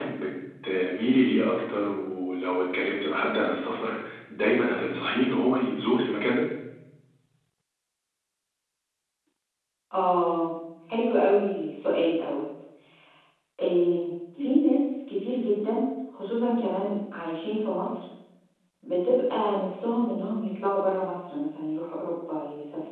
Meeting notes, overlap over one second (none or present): none